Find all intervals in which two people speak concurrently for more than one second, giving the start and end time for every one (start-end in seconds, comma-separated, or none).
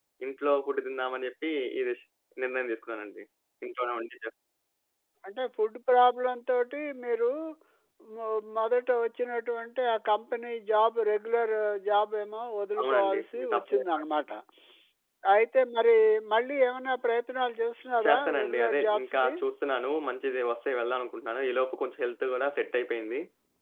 12.8-14.0, 18.0-19.3